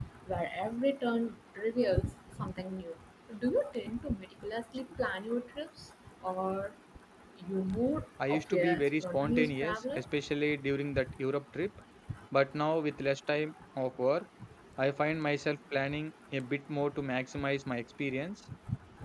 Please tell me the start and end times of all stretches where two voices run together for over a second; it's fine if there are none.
8.3-10.0

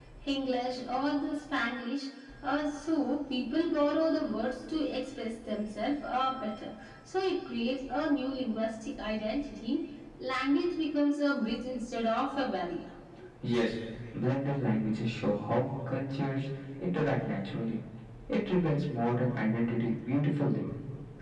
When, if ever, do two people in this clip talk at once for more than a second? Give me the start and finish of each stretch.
none

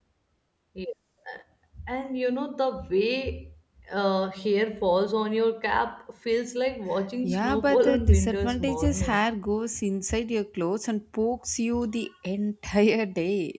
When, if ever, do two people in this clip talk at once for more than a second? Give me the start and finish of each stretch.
7.2-9.2

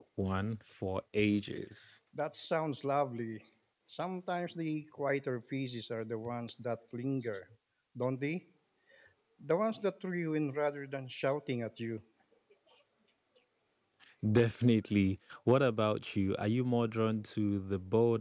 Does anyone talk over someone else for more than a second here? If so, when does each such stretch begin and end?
none

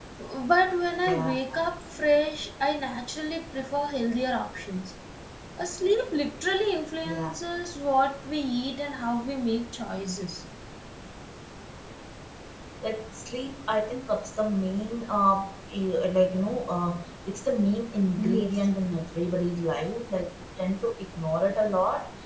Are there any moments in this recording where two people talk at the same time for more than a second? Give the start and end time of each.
none

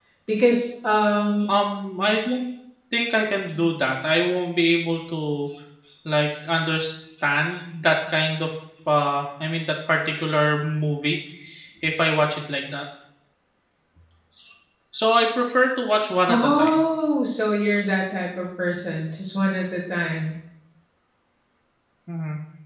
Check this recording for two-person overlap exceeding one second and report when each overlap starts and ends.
none

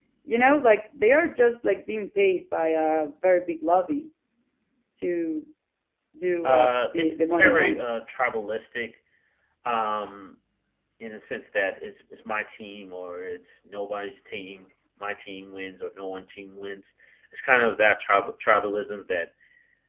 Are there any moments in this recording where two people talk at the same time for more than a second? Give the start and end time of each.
6.4-7.9

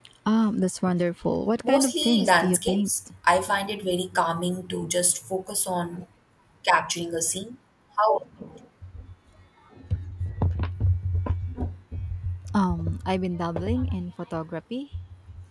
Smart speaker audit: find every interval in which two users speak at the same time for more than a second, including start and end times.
1.6-2.9

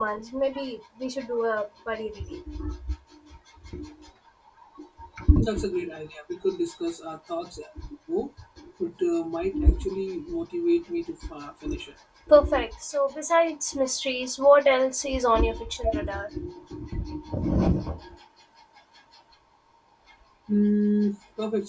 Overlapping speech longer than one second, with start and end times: none

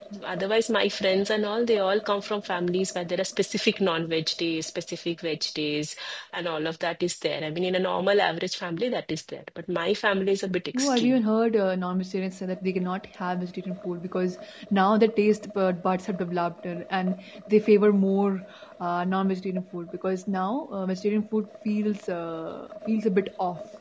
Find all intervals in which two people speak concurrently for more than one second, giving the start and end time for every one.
none

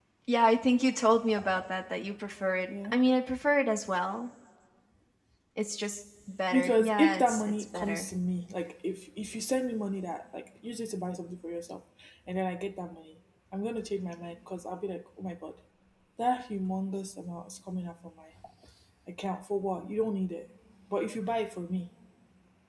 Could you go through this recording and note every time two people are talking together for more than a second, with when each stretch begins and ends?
6.5-8.1

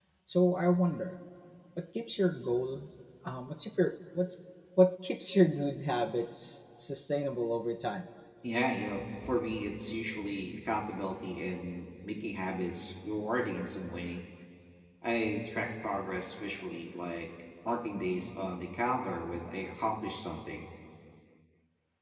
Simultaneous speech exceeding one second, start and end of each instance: none

